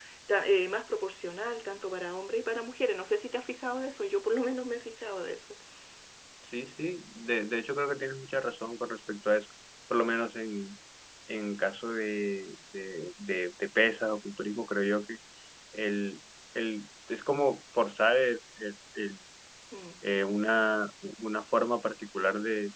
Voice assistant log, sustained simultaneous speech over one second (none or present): none